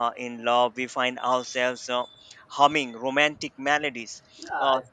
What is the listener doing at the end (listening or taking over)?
taking over